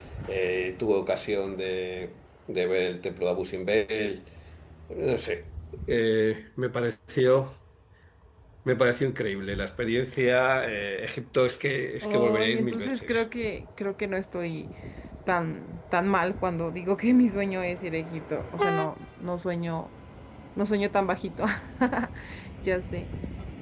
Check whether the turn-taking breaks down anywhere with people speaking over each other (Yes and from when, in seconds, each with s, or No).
Yes, from 12.0 s